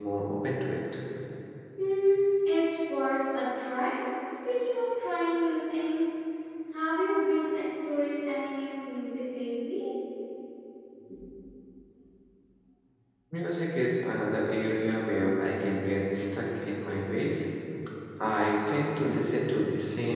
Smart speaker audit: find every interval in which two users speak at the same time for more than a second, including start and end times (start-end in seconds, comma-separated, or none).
none